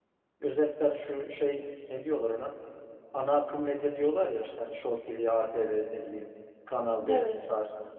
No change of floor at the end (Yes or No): Yes